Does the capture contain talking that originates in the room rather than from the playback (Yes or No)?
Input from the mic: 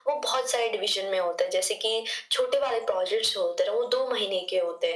No